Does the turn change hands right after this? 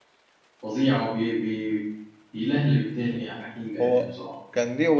Yes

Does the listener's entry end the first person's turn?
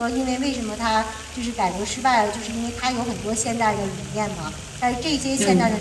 No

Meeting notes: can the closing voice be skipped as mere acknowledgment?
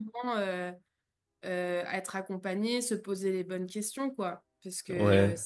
Yes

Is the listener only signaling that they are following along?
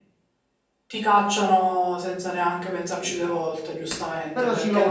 No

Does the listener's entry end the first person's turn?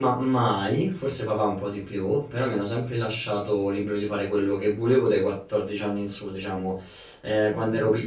No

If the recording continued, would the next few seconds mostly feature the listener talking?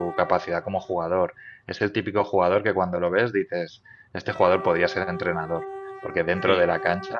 No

